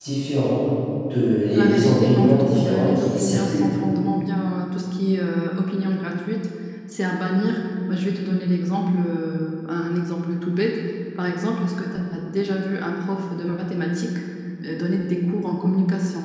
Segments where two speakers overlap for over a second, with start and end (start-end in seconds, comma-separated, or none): 1.5-3.7